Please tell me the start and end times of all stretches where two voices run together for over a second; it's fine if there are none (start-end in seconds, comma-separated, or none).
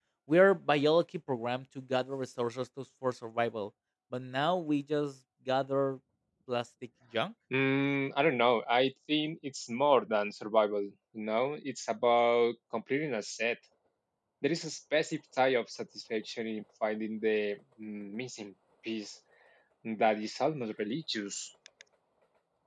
none